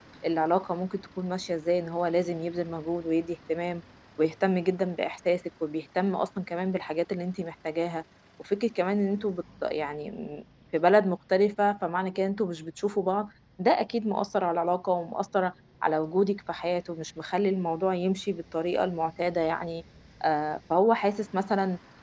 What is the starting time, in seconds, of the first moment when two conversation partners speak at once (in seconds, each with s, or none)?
none